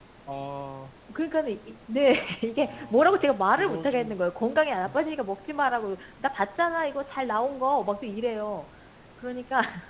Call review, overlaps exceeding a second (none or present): present